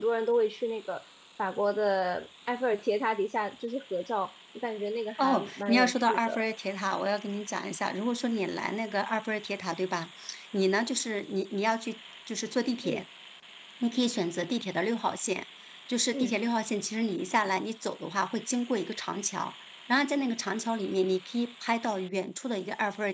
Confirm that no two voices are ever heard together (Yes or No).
No